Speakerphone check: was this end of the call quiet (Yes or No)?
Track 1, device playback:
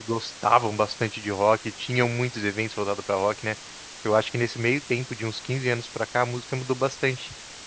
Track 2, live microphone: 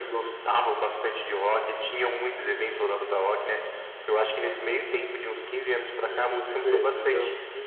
No